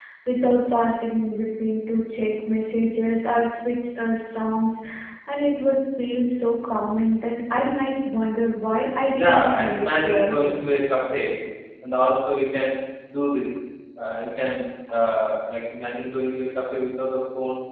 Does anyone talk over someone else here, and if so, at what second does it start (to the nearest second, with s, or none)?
9 s